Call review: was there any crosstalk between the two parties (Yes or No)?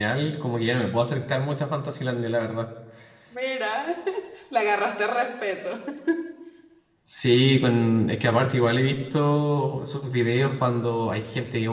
No